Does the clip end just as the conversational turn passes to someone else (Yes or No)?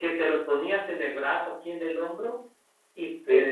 No